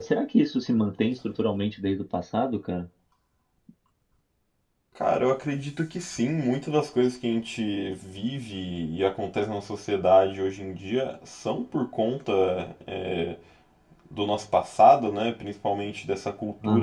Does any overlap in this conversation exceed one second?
No

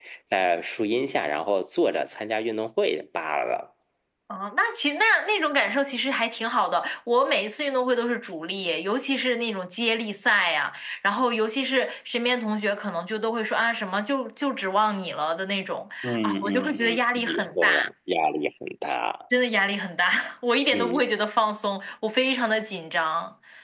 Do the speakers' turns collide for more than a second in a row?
Yes, from 16.2 s

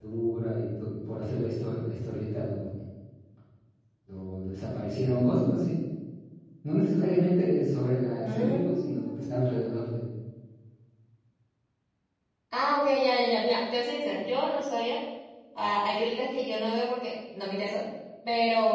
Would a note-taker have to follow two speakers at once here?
Yes, from 8.2 s

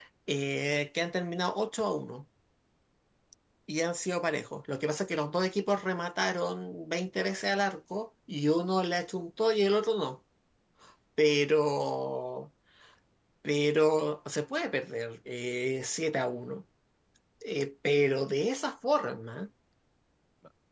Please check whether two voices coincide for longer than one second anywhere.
No

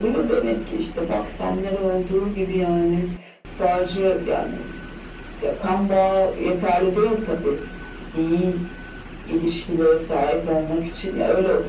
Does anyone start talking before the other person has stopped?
No

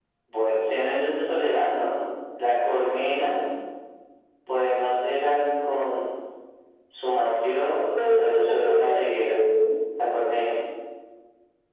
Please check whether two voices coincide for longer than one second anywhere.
Yes, from 7.9 s

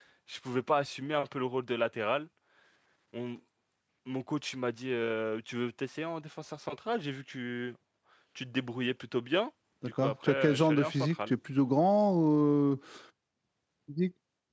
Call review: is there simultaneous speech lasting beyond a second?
Yes, from 10.0 s

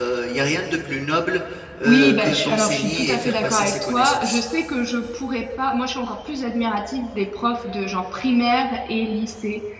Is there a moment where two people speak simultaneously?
Yes, from 1.8 s

